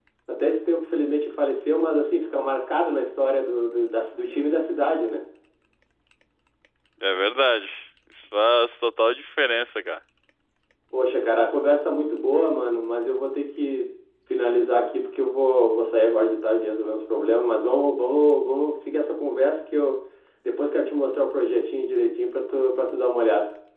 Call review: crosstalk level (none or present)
none